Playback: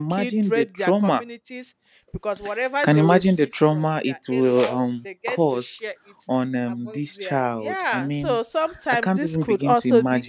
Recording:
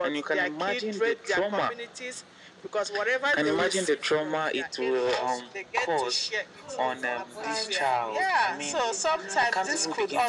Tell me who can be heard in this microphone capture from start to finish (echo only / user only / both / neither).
both